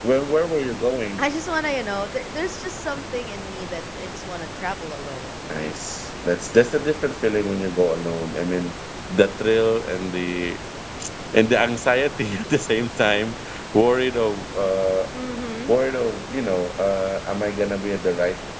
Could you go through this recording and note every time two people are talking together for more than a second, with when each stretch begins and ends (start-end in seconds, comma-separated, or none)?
none